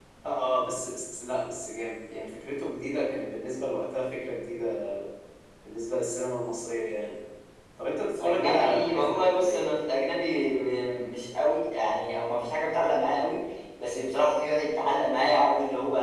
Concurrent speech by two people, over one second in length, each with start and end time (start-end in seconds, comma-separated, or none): 8.2-9.6